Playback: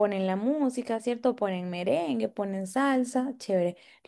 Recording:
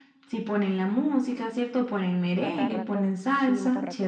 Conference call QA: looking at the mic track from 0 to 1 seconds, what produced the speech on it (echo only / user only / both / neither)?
echo only